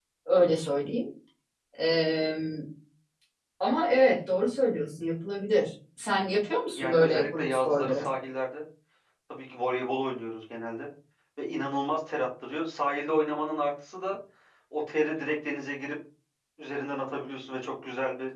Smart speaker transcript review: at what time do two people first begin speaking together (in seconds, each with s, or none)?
6.8 s